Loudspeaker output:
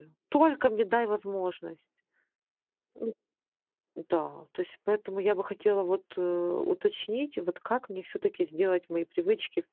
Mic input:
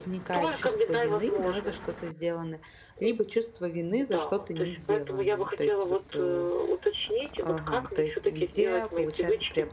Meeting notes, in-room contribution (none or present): present